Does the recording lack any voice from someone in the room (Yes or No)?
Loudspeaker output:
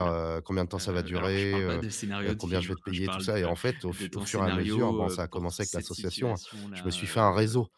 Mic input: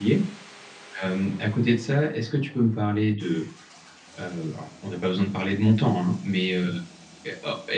No